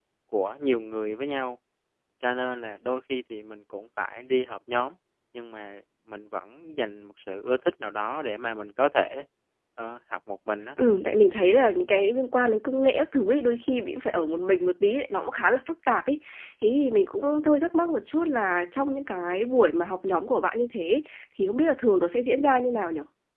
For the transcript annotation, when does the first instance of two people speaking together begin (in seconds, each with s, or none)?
none